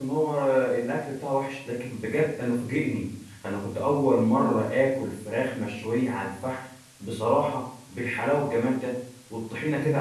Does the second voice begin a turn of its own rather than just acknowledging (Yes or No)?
No